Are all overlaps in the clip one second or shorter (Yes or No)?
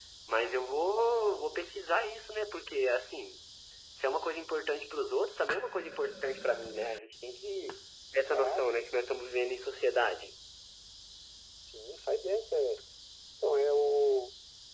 Yes